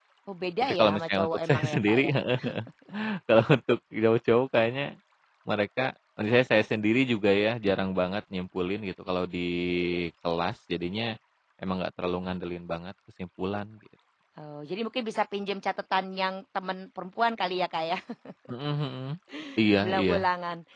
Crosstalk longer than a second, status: present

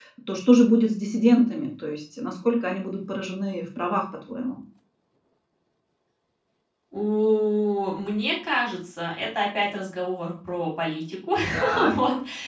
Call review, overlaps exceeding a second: none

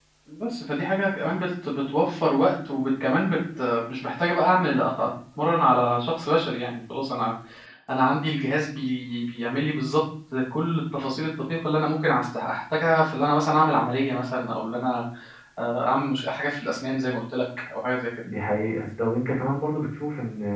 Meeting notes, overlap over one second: none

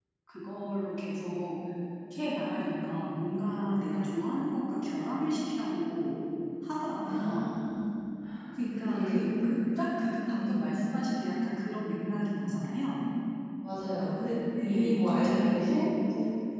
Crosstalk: present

